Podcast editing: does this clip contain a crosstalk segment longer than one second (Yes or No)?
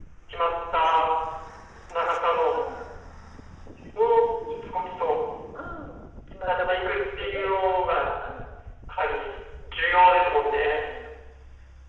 Yes